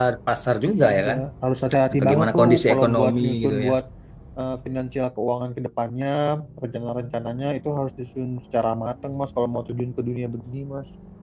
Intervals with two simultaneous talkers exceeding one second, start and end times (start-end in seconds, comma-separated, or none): 2.0-3.7